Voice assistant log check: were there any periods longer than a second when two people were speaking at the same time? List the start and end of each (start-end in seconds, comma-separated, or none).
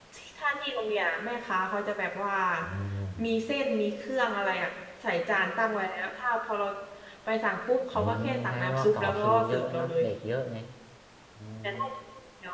7.9-10.0